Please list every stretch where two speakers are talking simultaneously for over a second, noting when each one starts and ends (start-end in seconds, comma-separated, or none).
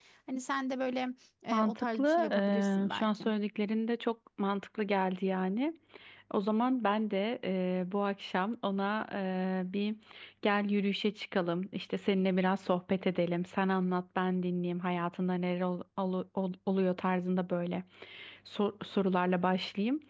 1.5-3.2